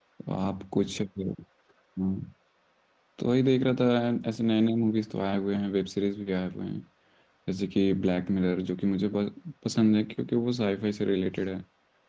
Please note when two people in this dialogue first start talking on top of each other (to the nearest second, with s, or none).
none